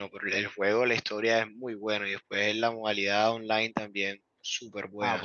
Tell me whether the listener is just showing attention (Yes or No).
No